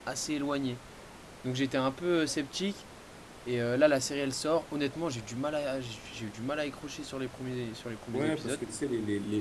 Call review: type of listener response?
taking over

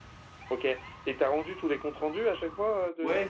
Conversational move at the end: taking over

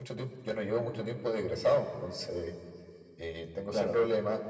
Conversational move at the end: listening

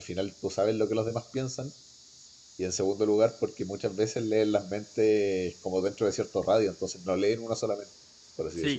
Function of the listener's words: taking over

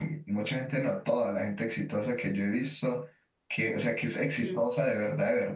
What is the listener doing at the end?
listening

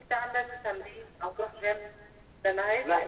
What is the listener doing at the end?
taking over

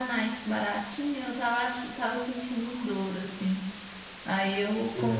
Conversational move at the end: listening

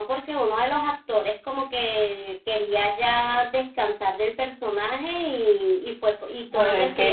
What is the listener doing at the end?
taking over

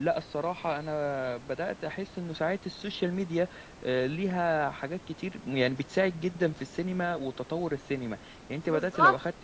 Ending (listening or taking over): listening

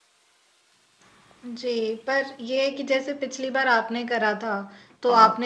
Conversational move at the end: listening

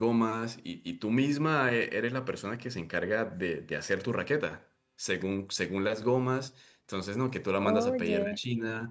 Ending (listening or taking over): listening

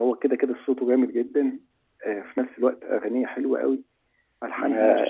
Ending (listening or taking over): listening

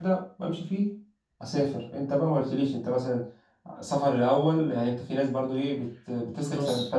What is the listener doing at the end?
listening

